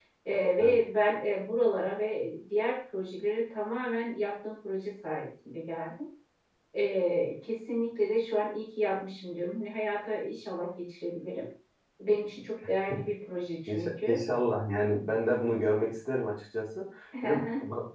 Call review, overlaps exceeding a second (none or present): none